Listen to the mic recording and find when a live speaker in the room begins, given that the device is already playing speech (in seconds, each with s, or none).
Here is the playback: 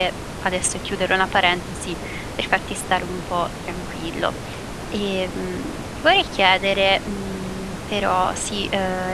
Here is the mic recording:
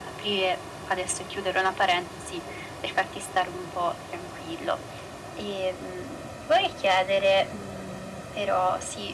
none